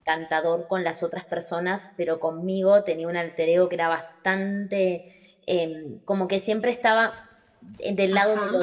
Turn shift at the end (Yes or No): No